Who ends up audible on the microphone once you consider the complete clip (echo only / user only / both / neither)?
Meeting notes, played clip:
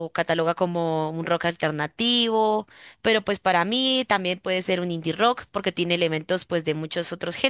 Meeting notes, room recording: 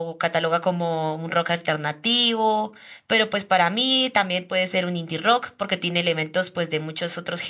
echo only